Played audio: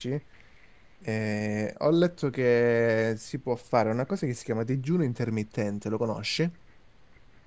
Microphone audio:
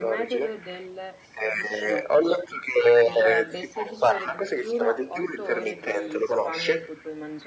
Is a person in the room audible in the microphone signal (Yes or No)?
Yes